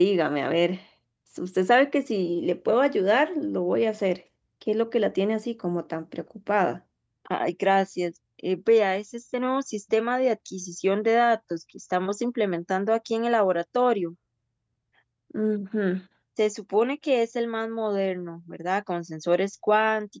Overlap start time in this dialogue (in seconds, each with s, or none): none